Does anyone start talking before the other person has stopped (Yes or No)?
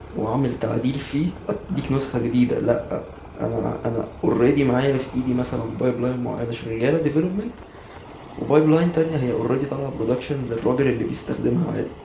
No